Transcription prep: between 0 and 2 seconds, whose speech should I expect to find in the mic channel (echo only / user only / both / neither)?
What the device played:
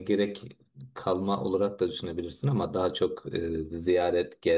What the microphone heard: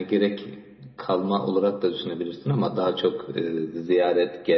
echo only